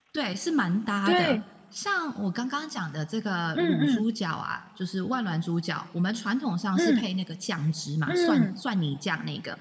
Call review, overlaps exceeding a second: none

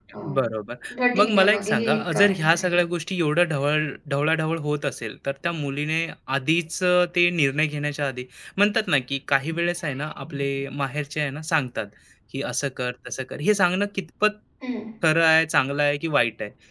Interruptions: present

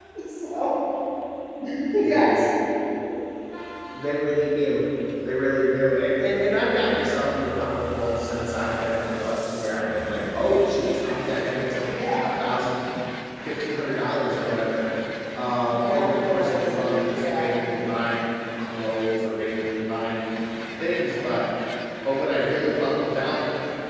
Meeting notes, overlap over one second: present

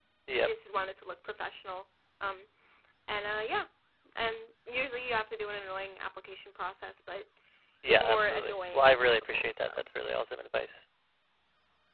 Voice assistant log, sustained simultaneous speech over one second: present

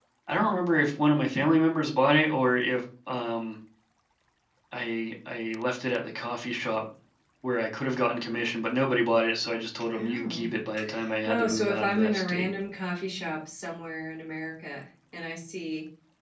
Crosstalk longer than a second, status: present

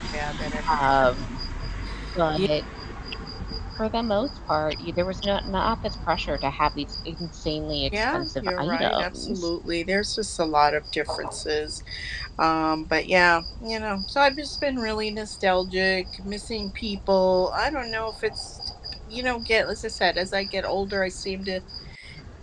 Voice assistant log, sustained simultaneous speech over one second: present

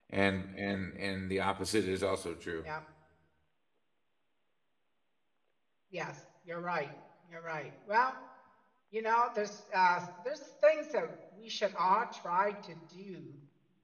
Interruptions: none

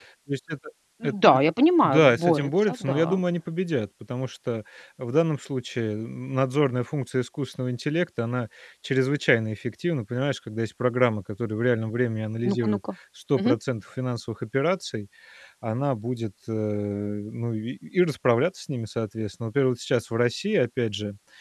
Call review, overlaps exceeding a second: present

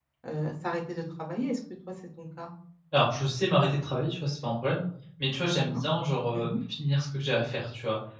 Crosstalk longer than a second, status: none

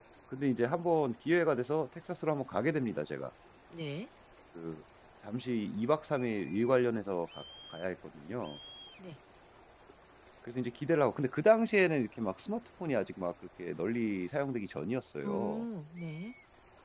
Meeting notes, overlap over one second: none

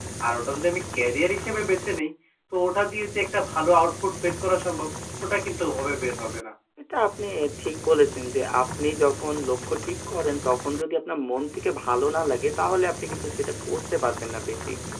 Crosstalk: none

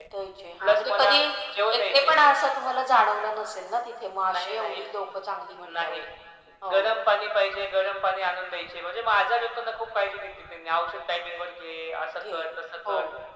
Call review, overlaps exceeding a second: none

